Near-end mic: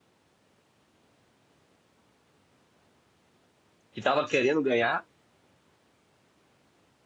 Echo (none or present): none